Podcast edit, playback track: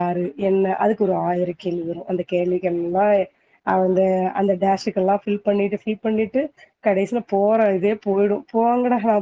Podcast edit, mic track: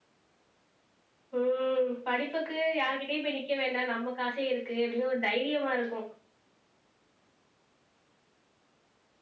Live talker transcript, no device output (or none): ம் படிப்புக்கு யார்கிட்டயு போய் நிக்க வேண்டா நம்ம காசே இருக்கு அப்டின் ஒரு தைரியமாருக்கு